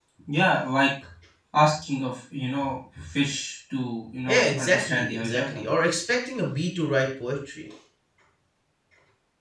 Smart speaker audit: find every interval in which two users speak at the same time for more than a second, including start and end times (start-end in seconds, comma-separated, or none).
4.3-5.6